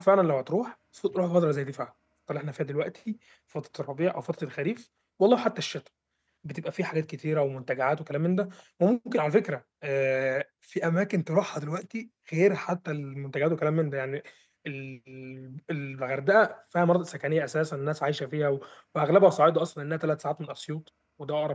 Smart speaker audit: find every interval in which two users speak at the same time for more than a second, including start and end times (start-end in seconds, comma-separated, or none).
none